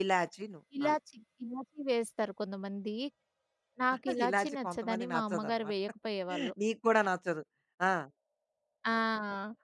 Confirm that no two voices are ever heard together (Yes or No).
No